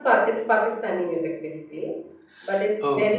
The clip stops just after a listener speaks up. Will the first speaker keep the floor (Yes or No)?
Yes